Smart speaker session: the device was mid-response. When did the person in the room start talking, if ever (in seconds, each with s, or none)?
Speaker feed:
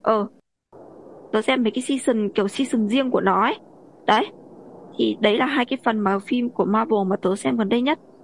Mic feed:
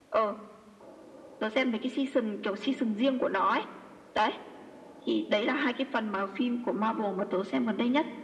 none